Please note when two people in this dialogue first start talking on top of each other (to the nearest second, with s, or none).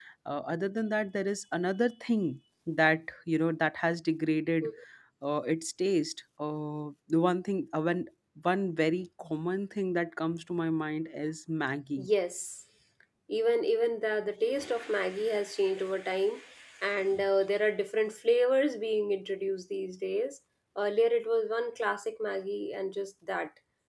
none